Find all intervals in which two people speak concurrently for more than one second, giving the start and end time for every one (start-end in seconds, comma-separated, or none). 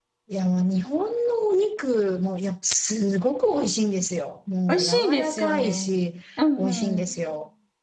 4.7-5.9